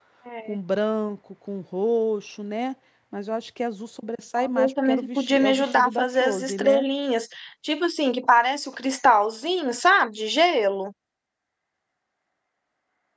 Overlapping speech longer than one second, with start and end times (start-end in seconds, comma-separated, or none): 4.4-6.8